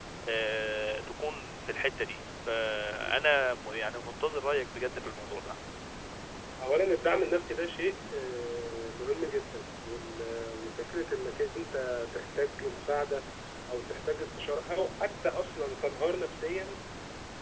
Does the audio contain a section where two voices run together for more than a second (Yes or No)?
No